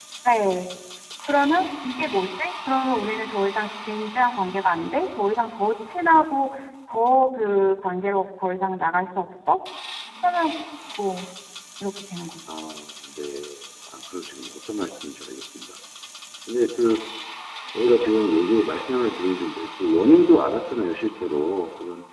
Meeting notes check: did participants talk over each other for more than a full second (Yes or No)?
No